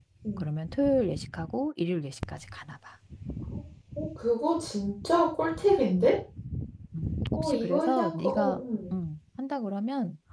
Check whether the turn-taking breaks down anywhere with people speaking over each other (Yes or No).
Yes